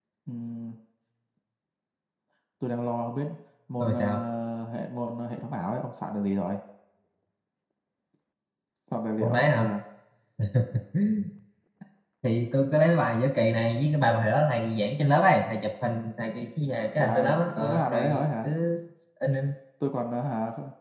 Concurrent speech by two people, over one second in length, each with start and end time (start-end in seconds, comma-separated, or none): 17.0-18.5